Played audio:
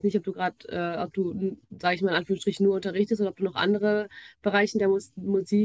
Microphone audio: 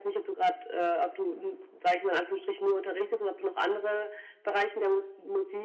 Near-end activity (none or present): none